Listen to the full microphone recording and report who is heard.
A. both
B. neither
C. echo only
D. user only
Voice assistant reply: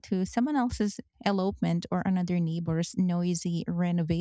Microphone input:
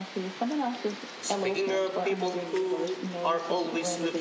A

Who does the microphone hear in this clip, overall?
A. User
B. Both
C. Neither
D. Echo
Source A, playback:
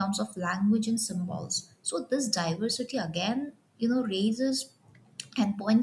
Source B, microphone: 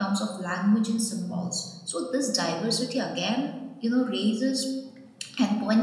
D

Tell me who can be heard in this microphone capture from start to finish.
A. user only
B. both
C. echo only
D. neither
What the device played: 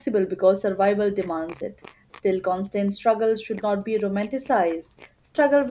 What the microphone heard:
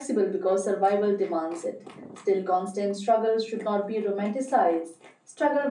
C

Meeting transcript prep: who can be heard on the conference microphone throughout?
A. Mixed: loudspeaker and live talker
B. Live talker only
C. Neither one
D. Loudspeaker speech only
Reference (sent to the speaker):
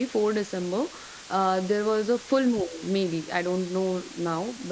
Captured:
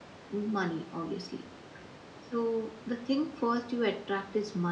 B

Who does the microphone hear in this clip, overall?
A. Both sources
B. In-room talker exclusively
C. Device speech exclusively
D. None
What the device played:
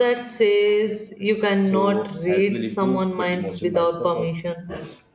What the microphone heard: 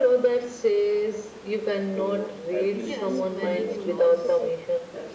A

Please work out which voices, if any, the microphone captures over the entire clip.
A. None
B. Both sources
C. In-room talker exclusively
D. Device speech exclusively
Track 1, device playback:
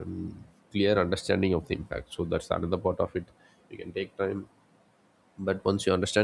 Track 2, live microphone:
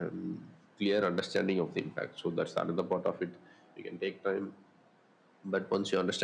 D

